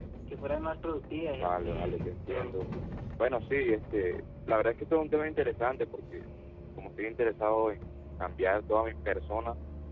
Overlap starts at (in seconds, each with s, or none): 1.3 s